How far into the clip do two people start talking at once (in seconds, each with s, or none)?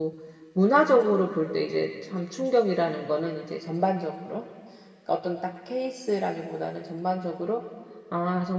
none